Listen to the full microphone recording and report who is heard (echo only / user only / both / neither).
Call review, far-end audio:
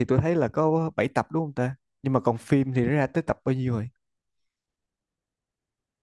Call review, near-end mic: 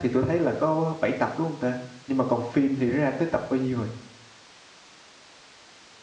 echo only